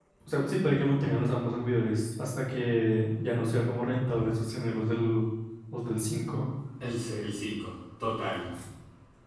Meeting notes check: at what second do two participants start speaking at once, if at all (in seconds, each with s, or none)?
none